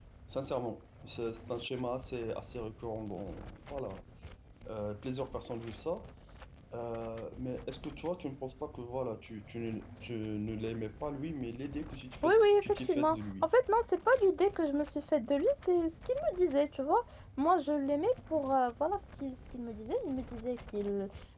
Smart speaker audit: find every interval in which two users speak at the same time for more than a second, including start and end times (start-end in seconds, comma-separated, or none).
12.2-13.5